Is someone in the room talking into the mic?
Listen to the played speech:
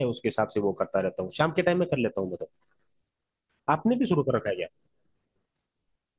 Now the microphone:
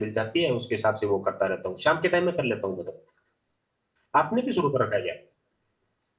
No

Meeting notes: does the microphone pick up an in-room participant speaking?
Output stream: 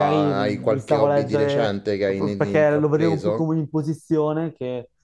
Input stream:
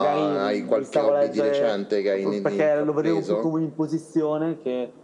No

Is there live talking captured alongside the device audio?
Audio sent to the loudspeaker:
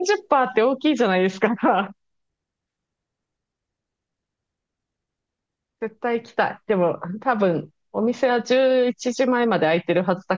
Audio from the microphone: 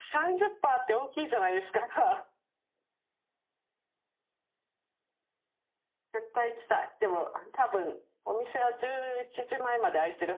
No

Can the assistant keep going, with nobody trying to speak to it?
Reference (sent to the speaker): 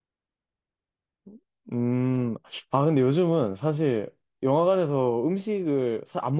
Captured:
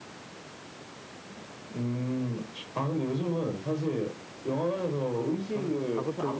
No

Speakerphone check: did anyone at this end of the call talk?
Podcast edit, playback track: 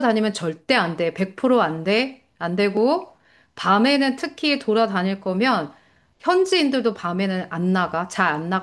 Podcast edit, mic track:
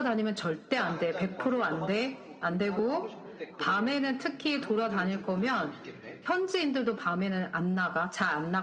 Yes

